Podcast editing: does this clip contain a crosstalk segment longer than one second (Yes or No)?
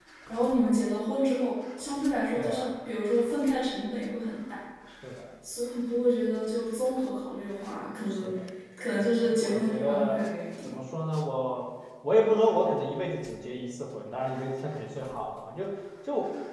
Yes